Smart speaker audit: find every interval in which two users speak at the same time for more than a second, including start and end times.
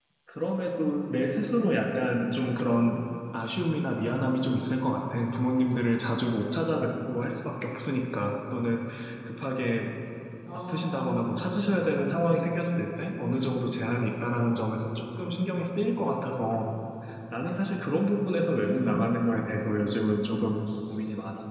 none

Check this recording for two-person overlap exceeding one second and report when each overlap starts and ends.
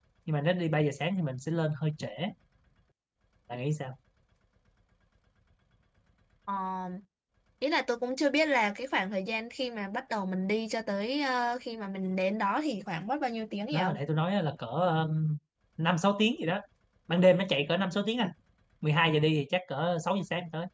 none

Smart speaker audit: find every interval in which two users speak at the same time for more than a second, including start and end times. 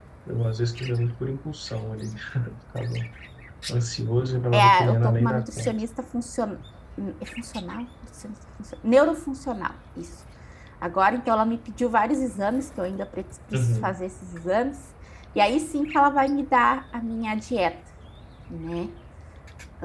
4.5-5.7

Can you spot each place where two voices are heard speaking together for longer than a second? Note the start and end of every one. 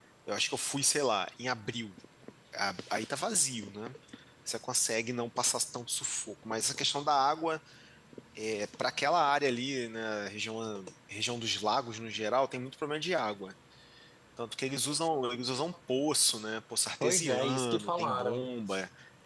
17.0-18.5

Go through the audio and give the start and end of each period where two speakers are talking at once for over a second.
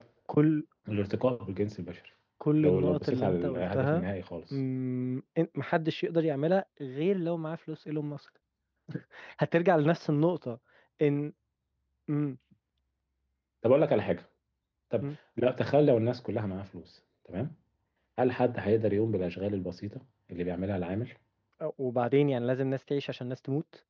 2.6-4.0

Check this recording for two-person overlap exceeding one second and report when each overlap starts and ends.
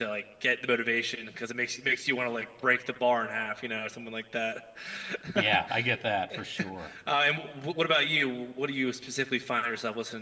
none

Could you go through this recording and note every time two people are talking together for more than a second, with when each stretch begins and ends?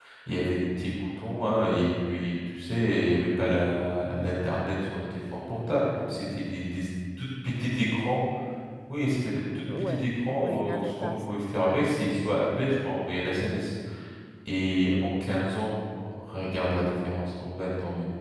9.8-11.3

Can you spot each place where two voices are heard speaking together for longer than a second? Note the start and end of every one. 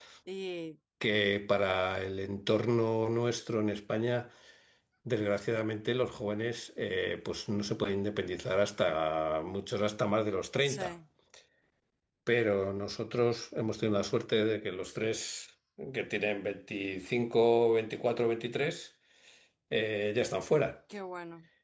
none

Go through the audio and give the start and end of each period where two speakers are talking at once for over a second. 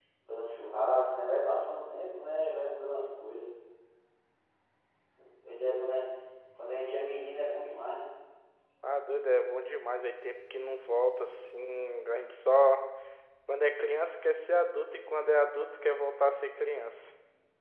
none

